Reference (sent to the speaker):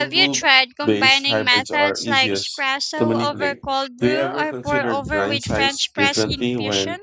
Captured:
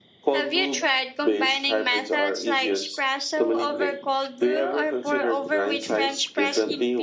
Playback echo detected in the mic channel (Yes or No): Yes